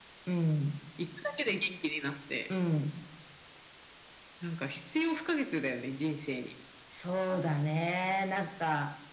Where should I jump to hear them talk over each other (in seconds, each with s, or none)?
none